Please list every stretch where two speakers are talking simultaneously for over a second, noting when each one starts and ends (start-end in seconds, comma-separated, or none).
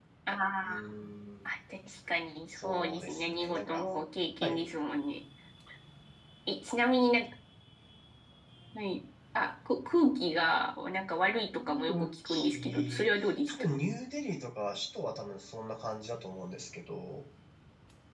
2.5-3.8, 11.6-13.7